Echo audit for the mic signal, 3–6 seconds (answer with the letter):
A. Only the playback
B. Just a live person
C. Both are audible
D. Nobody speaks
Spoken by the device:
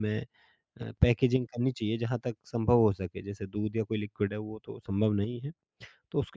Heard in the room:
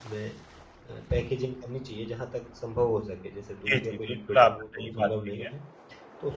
C